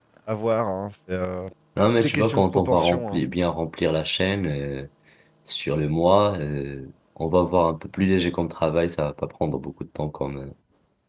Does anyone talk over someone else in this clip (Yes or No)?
Yes